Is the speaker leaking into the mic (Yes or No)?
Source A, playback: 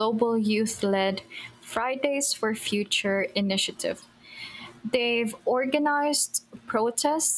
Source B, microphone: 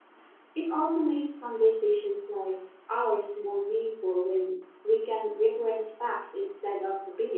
No